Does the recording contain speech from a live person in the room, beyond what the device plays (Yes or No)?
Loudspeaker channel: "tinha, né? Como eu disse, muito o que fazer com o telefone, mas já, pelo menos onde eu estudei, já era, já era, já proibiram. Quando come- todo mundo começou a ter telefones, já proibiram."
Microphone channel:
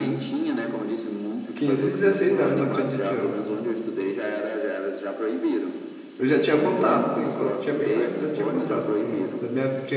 Yes